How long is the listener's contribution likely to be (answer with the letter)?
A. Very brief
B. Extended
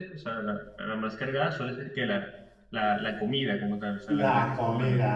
B